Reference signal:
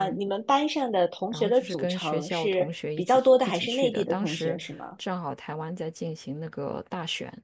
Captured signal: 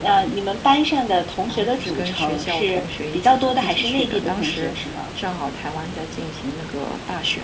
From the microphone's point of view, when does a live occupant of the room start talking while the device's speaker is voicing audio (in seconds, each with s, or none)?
none